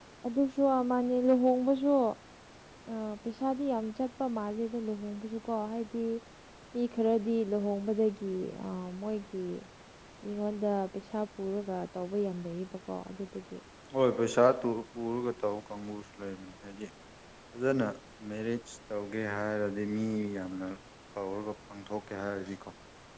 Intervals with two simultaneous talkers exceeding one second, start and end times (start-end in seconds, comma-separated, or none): none